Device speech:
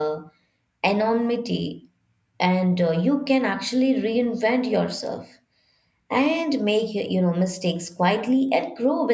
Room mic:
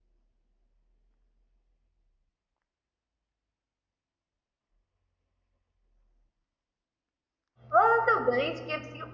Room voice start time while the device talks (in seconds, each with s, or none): 7.7 s